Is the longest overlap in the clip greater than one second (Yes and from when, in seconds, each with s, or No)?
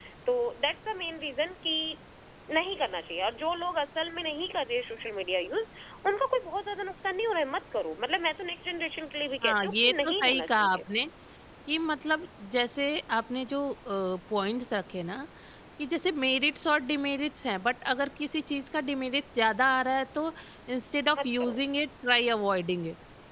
Yes, from 9.4 s